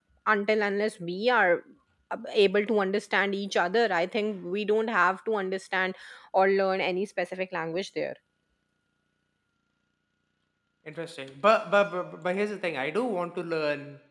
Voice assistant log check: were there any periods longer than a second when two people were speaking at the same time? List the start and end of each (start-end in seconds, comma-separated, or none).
none